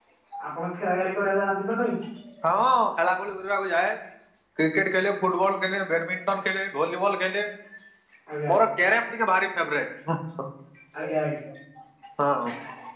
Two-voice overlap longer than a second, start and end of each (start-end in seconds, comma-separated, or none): none